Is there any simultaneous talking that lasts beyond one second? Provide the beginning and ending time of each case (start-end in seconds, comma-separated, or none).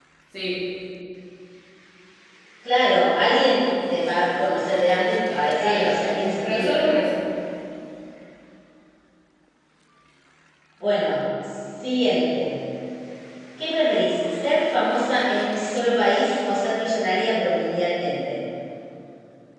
none